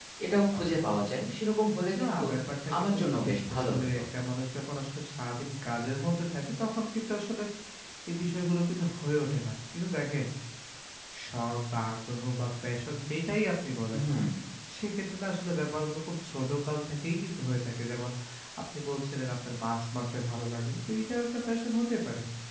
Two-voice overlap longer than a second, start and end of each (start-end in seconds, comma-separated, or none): 2.8-4.0